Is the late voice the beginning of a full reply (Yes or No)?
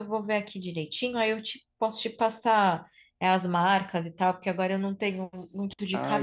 Yes